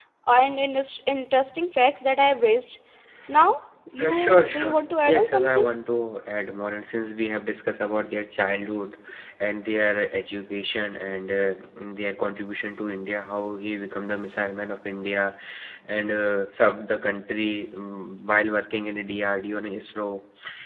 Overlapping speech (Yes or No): Yes